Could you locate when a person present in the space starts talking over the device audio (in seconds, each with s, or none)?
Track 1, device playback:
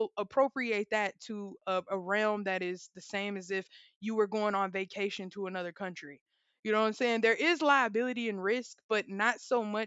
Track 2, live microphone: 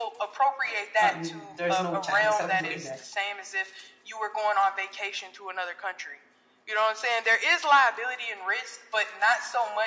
1.0 s